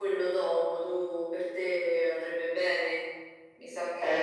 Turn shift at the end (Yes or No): Yes